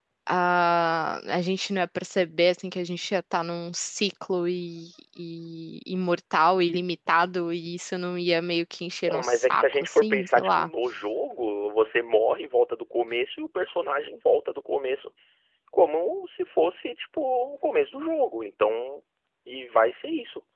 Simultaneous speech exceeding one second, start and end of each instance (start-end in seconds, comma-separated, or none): 9.1-10.7